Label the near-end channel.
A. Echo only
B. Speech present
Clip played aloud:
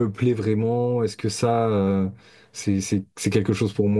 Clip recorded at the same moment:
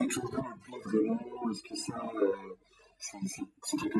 A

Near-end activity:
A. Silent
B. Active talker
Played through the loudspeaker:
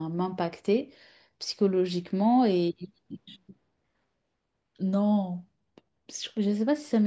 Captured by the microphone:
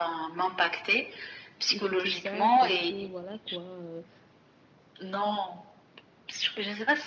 B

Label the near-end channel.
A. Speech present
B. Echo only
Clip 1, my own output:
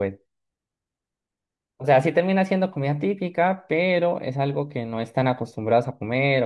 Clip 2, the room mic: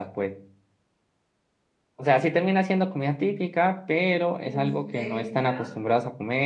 A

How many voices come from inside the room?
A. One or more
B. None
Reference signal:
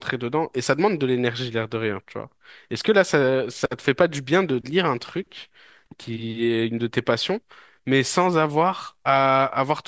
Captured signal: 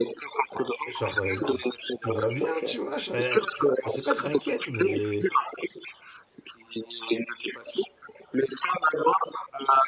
A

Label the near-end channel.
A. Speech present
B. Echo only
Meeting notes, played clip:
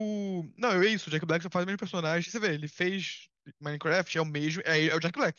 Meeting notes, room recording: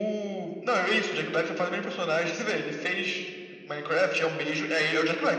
B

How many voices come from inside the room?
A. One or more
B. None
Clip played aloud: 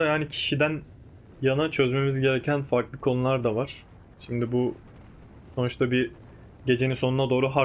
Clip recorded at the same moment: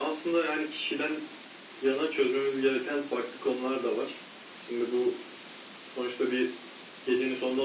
B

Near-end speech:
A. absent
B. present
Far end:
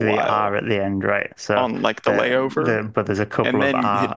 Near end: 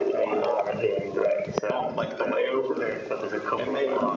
A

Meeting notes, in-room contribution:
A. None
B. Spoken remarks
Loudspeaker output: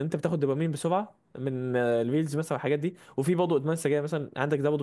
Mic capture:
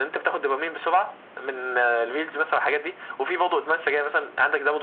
A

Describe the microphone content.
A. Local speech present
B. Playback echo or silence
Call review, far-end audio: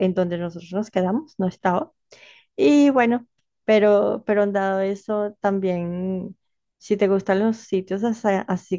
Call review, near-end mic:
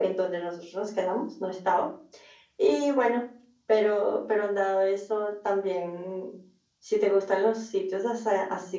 B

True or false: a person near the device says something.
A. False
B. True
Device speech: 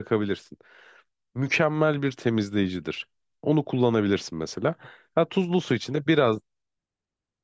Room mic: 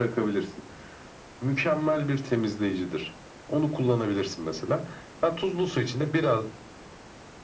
A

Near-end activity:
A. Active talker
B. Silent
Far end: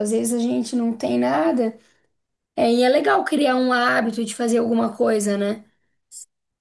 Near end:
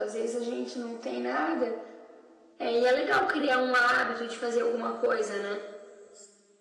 B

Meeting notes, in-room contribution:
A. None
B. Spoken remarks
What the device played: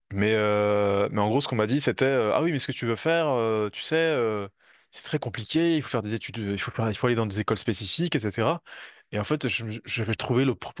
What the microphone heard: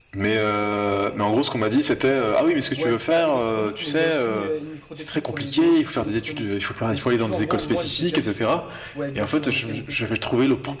B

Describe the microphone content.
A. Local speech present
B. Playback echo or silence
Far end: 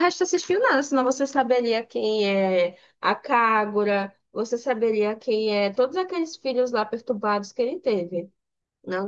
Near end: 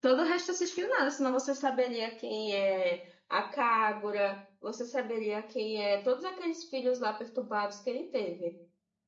B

